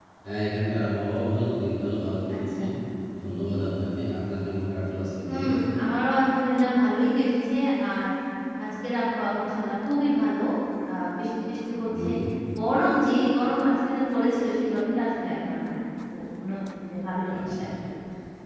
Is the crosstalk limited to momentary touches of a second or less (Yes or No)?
Yes